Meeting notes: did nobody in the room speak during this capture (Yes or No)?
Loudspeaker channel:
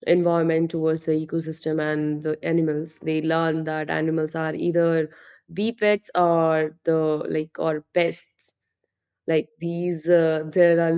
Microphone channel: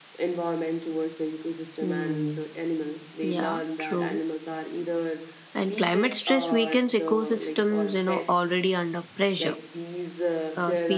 No